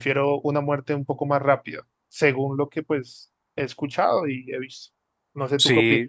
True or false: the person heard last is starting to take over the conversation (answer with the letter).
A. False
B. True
B